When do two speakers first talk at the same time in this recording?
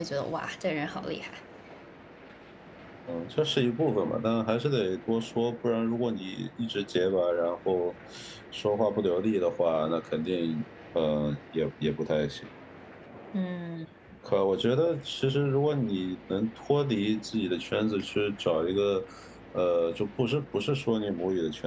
none

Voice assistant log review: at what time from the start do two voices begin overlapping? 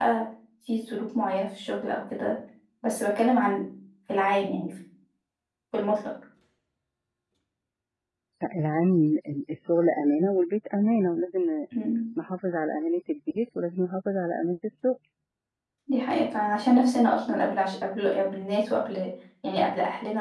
none

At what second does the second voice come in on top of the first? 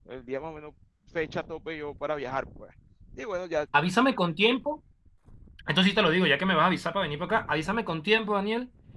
none

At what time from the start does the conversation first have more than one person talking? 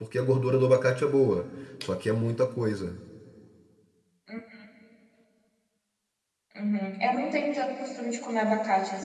none

